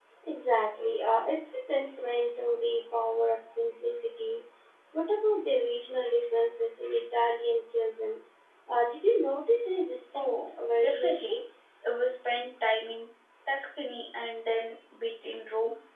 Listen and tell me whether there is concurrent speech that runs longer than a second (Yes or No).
Yes